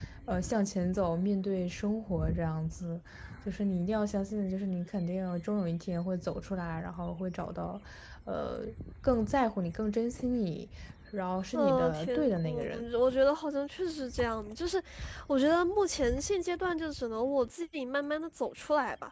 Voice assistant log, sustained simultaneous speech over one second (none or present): present